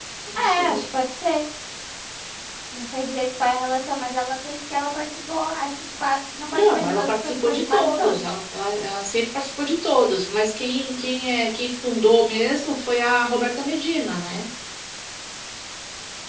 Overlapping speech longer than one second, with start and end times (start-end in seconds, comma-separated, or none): 6.5-8.3